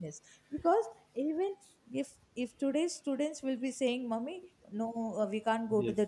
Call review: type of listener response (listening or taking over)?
listening